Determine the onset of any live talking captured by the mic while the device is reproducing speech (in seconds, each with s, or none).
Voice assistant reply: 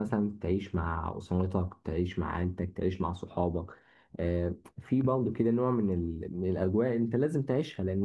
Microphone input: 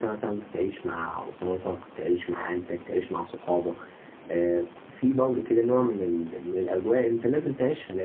none